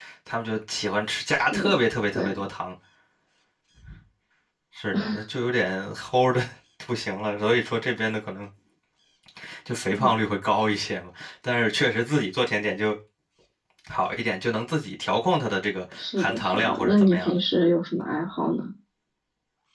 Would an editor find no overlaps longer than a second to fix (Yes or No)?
No